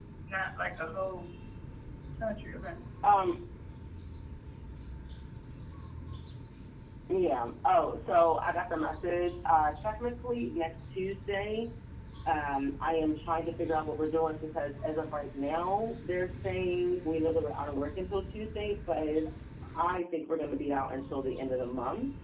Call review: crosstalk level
none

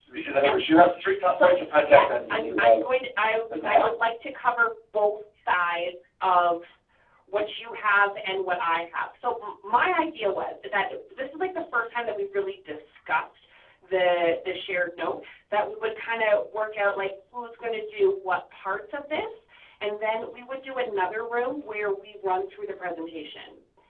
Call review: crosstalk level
present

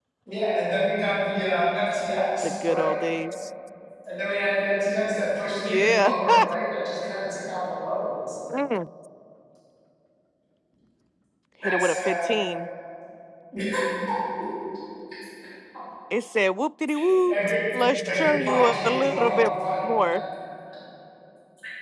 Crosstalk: present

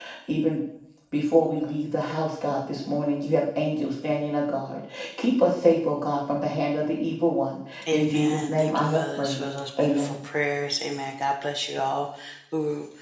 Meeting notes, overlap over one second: present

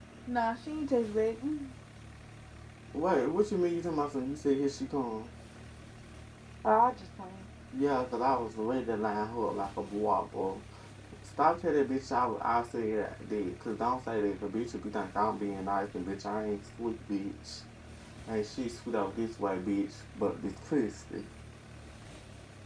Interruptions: none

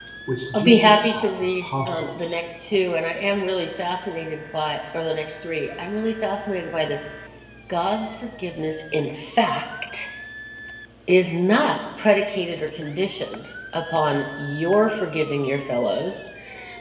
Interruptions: present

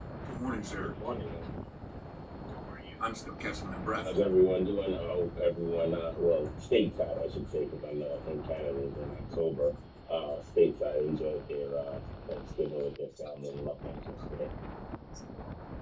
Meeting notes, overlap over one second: none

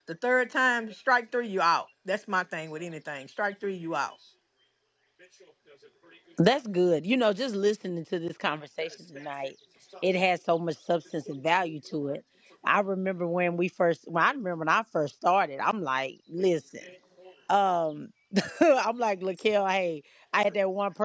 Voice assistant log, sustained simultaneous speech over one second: none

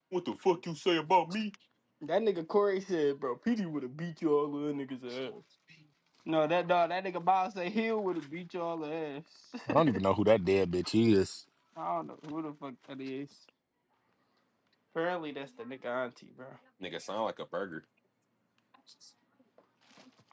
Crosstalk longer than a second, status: none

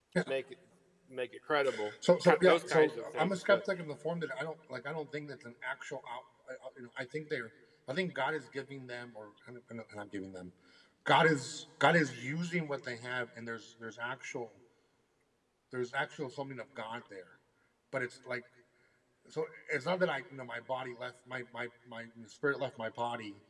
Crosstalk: present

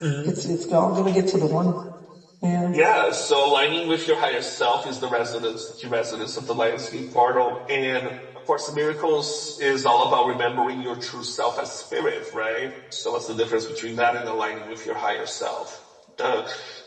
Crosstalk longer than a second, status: none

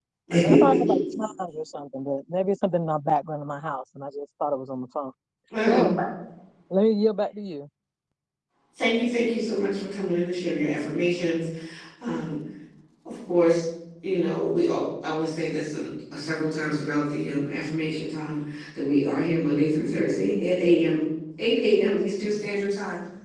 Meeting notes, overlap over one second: none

